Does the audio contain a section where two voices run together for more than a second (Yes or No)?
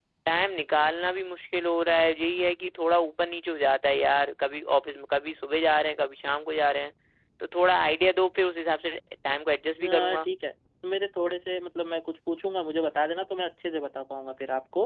No